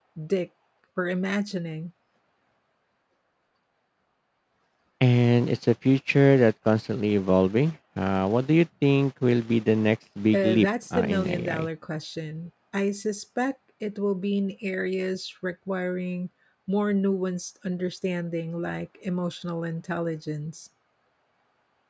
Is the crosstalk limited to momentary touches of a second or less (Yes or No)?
No